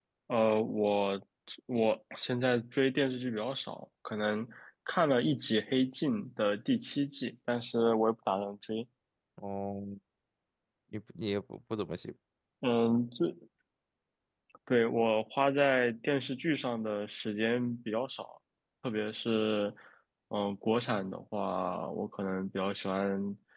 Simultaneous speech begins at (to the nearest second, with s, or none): none